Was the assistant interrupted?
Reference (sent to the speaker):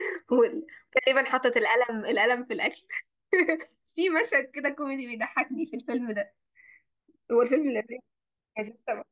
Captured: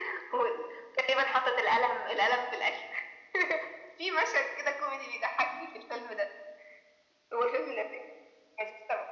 No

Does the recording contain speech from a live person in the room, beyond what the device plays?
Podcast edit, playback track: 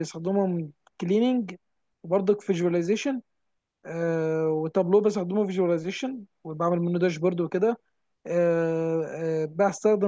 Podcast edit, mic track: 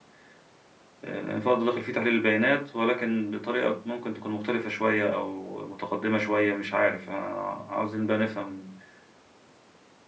Yes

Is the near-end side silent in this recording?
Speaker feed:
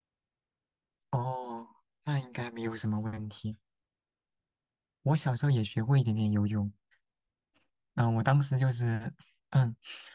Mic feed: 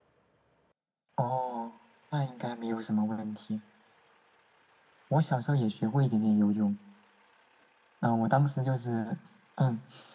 Yes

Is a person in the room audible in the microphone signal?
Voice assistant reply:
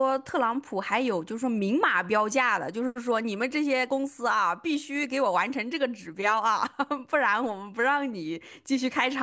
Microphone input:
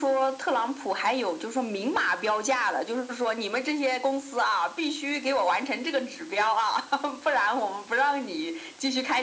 No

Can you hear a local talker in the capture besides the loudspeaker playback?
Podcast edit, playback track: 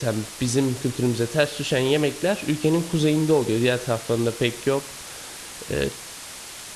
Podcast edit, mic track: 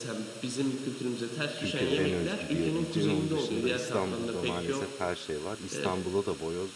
Yes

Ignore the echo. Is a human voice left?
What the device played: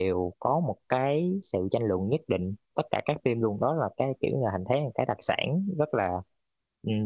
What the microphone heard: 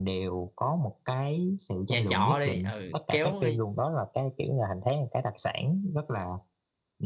Yes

